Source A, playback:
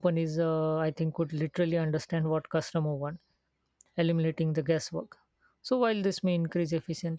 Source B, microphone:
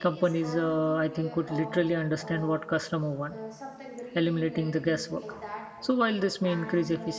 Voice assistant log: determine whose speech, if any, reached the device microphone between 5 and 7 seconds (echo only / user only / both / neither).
both